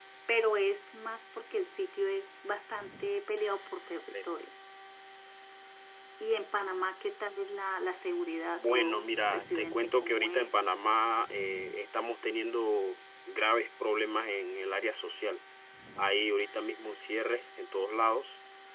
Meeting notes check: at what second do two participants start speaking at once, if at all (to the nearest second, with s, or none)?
9 s